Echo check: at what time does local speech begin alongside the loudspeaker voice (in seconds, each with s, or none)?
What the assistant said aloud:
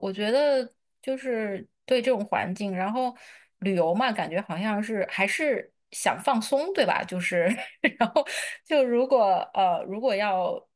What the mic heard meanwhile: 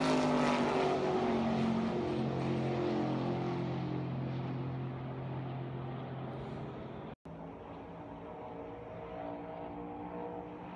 none